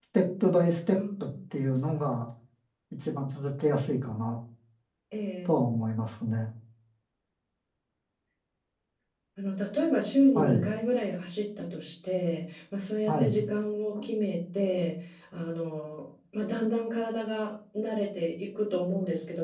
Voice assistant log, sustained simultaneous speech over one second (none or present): none